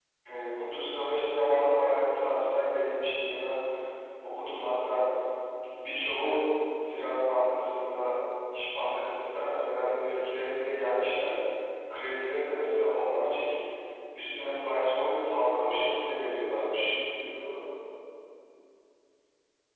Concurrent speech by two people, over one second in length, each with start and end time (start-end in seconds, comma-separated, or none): 15.6-16.9